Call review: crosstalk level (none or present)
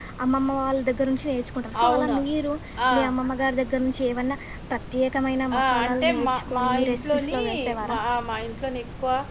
present